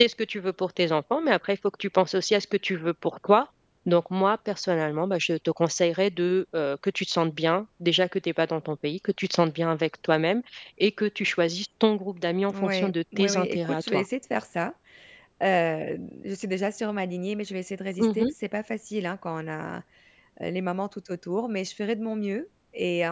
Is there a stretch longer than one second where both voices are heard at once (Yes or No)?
Yes